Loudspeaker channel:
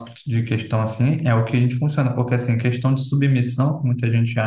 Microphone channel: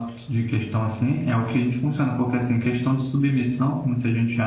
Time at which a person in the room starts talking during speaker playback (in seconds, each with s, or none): none